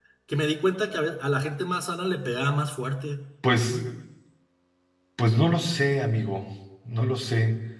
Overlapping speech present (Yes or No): No